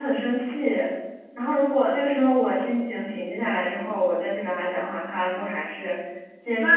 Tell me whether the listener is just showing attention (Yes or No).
No